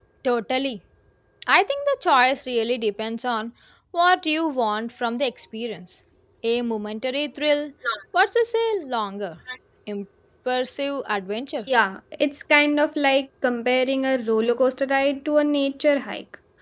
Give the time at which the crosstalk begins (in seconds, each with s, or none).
none